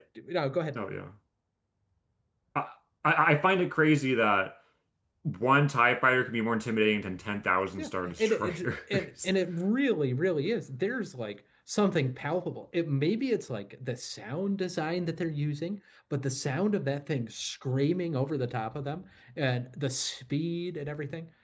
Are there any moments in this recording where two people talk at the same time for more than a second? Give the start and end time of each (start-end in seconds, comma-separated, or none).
7.8-9.3